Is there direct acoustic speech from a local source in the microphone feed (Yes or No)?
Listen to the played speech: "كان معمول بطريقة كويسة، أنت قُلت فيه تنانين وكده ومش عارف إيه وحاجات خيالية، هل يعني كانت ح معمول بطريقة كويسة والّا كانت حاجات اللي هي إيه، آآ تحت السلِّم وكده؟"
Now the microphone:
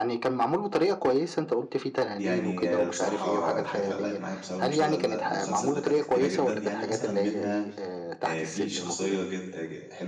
Yes